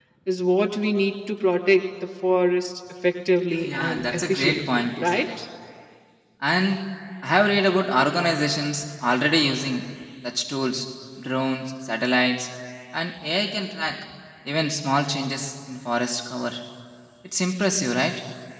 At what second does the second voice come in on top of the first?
3.6 s

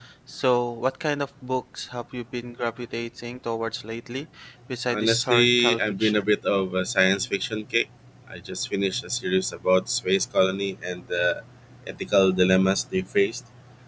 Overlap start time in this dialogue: 4.9 s

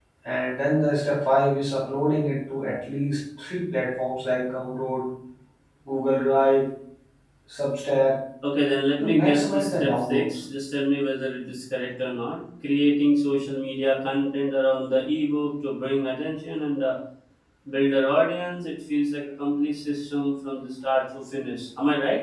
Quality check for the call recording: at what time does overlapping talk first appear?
9.0 s

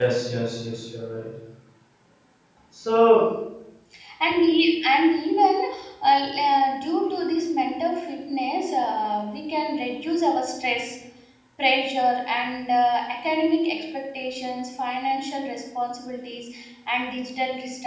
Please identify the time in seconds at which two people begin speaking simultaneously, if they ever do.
none

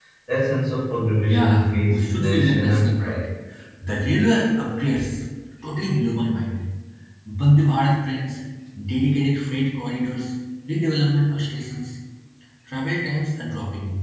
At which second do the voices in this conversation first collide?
1.2 s

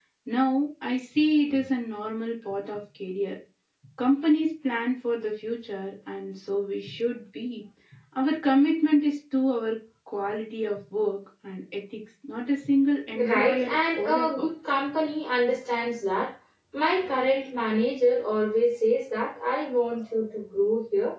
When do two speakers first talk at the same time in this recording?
13.1 s

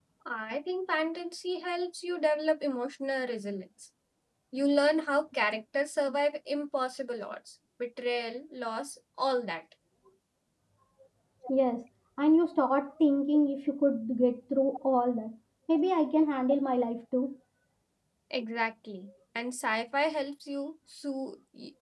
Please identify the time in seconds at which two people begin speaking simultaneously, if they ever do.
none

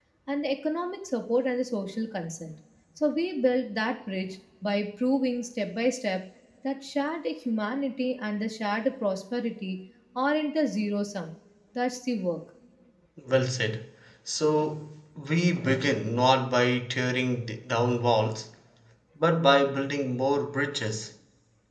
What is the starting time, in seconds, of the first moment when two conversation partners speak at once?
none

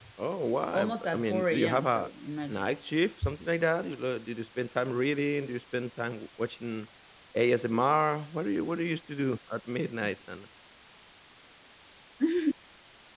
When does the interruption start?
0.7 s

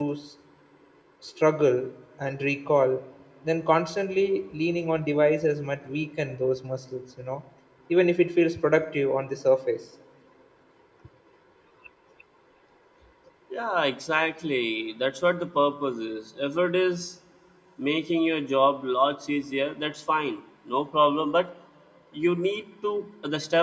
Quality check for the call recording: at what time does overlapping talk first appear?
none

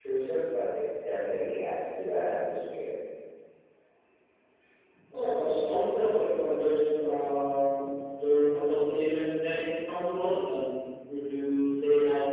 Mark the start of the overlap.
none

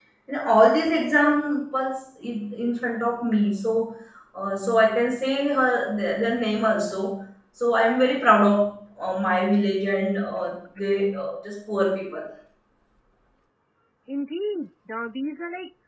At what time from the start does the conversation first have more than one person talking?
none

